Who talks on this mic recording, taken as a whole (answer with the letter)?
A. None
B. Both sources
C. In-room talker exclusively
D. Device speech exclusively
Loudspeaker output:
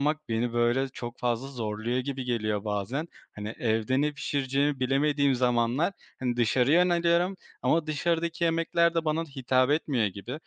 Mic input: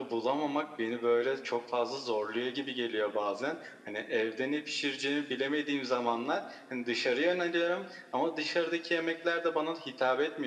D